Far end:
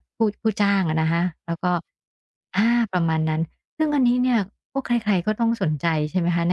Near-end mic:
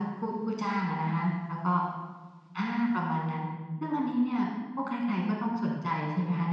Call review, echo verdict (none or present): present